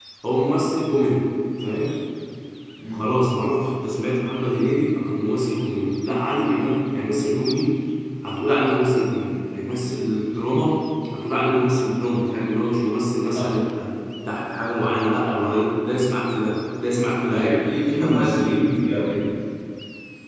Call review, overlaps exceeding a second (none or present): present